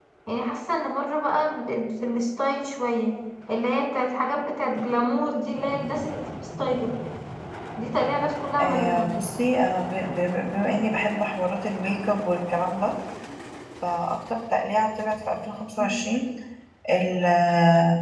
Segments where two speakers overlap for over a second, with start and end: none

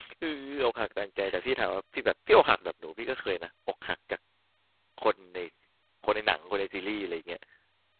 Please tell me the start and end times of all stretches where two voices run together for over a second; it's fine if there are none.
none

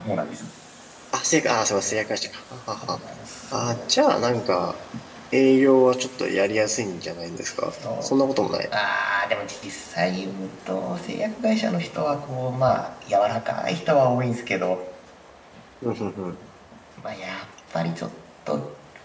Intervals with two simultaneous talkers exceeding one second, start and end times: none

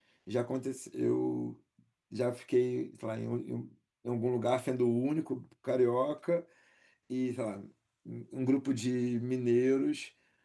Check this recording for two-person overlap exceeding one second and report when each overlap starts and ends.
none

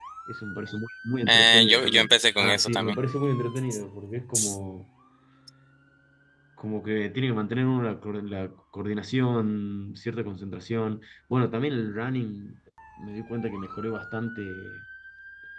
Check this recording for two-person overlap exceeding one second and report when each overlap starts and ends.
1.3-3.0

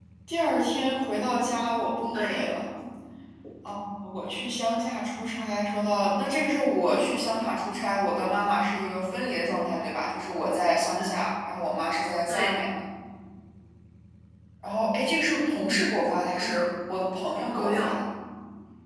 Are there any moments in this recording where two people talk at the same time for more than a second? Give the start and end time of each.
none

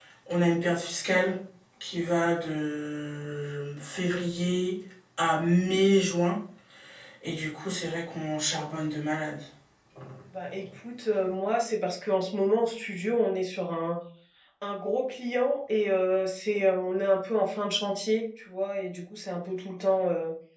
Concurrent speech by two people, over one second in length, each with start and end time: none

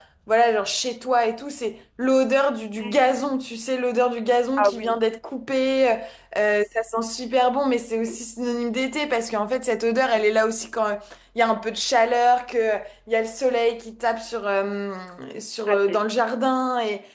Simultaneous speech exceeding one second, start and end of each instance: none

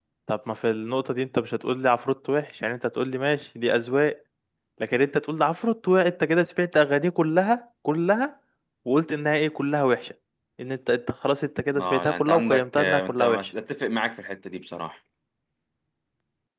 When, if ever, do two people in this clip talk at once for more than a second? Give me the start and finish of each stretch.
11.8-13.5

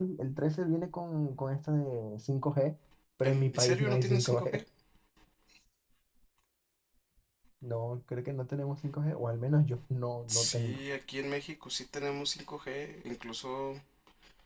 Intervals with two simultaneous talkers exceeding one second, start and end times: 3.2-4.6

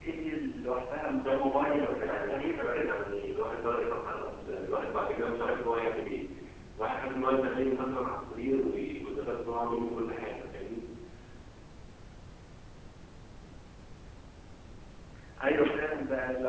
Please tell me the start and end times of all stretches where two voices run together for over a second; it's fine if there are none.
1.0-2.9

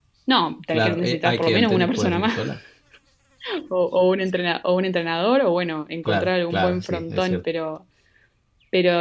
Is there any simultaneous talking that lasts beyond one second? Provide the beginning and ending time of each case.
0.7-2.4, 6.0-7.4

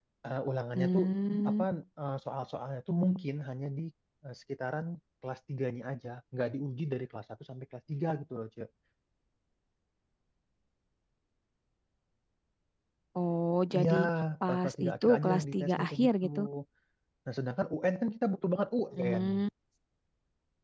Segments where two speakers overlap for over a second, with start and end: 14.5-16.2

